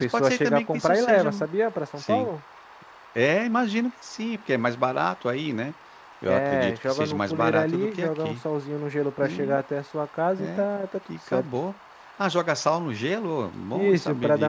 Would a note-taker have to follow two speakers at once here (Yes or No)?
Yes